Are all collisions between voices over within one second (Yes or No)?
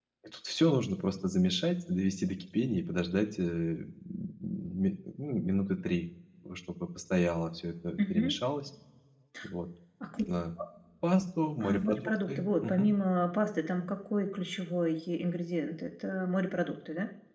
No